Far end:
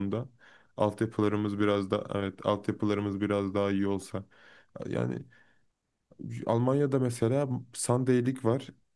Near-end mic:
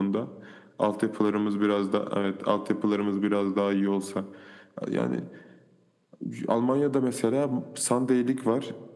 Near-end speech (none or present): none